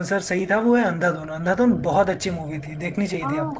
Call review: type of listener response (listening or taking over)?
taking over